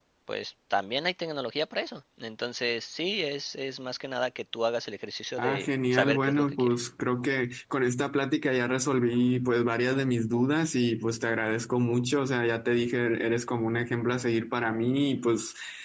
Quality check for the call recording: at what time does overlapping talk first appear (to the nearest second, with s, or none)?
5 s